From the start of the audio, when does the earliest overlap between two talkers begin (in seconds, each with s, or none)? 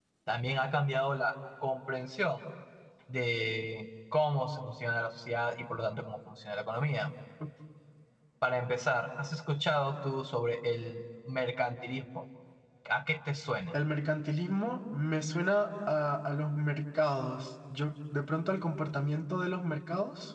none